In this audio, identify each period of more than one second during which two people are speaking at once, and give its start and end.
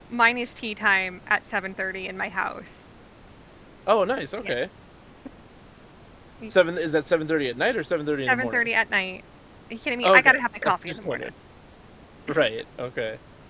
10.0-11.3

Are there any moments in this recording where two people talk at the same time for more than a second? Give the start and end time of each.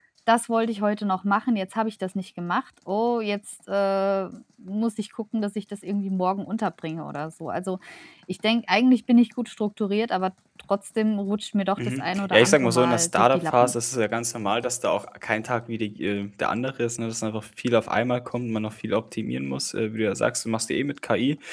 11.8-13.8

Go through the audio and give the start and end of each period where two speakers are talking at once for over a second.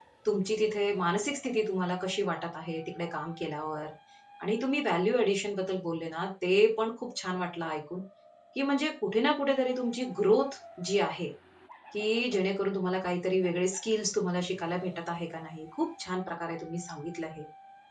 none

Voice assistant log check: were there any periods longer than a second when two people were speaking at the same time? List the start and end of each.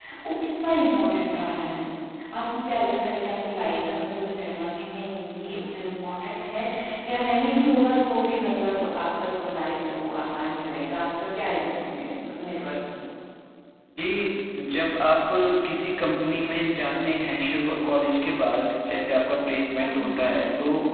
none

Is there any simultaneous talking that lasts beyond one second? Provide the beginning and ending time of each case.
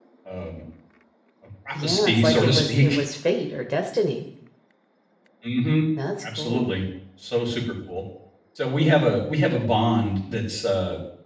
1.8-3.0

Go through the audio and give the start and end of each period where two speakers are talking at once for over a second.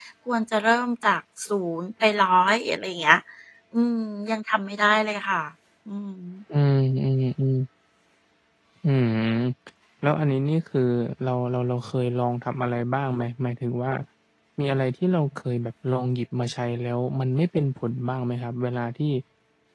none

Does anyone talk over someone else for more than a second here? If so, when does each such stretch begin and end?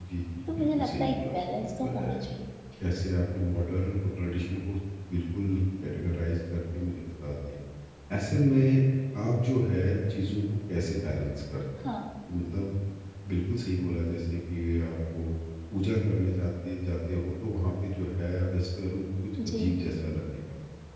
0.6-2.1

